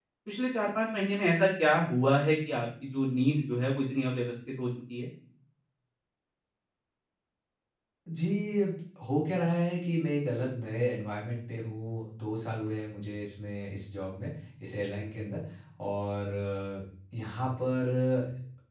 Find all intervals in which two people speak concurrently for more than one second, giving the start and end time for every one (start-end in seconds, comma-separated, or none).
none